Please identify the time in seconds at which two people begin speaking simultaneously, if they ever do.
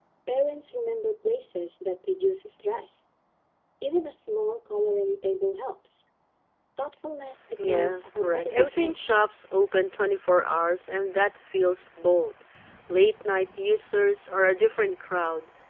7.6 s

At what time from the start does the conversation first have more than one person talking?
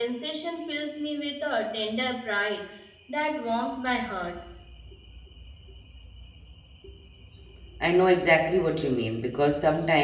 none

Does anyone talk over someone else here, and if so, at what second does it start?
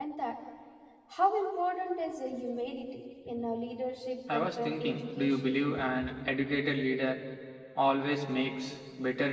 4.3 s

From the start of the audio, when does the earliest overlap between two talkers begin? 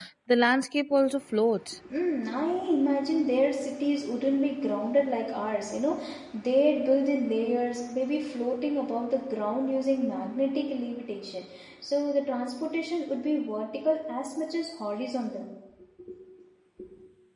none

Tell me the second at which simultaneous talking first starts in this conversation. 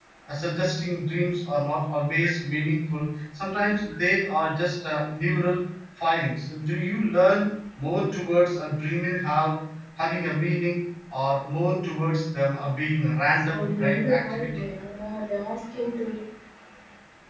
13.4 s

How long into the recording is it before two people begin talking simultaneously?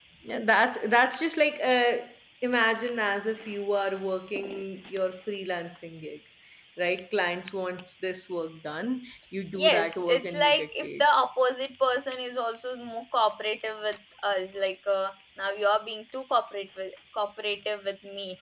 9.5 s

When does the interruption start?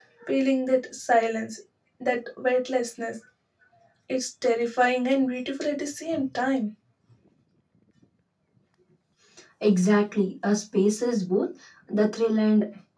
none

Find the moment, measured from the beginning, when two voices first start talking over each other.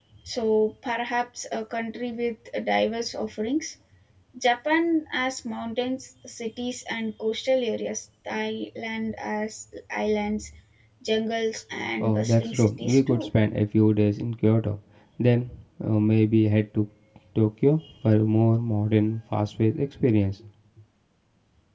12.0 s

